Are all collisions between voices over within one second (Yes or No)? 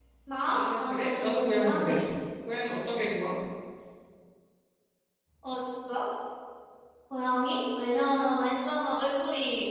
No